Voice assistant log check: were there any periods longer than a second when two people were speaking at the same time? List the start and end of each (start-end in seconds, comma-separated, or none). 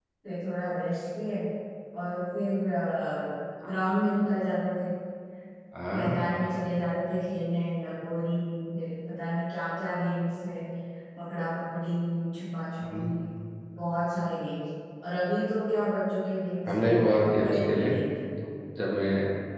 16.7-17.9